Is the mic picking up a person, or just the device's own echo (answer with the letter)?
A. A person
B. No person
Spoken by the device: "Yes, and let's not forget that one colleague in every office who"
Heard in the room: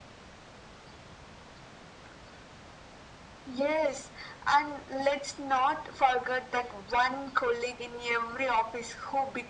B